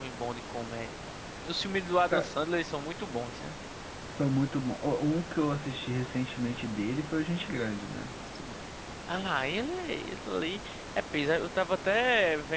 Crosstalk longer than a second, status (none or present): none